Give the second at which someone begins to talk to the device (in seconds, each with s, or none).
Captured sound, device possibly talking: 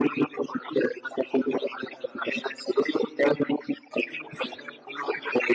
none